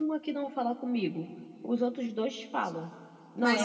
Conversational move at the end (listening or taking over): listening